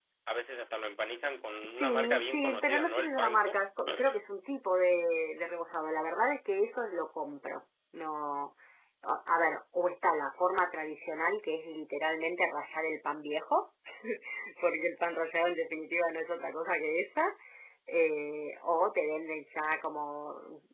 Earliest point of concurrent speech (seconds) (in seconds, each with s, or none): 1.6 s